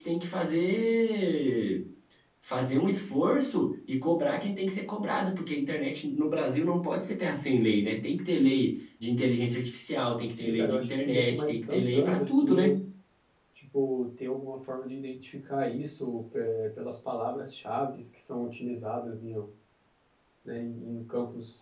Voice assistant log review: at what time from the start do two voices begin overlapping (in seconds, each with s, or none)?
10.3 s